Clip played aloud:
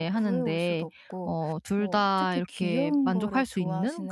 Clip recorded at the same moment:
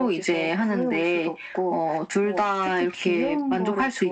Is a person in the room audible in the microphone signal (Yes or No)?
No